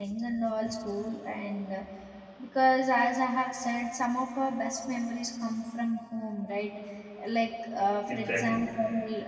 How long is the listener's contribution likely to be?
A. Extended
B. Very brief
B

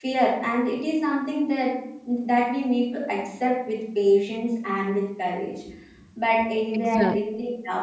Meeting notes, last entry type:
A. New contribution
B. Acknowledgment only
B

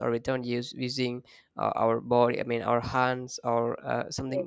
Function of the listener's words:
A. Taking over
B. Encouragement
B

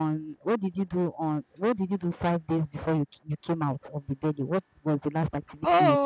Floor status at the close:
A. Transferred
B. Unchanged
A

